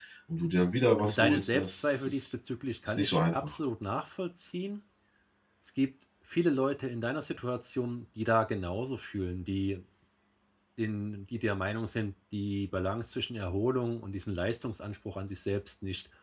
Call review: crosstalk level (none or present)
present